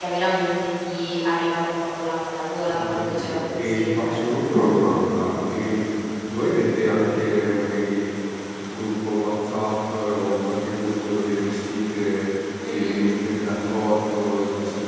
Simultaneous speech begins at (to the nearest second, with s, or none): 3 s